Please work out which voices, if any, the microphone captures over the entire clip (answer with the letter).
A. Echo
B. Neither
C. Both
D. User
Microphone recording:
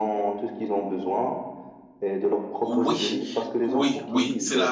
C